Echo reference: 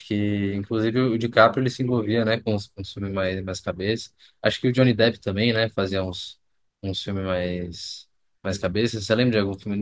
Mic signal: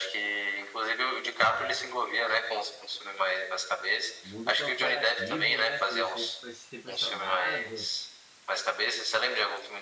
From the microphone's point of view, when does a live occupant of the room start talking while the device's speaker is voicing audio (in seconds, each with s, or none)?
4.2 s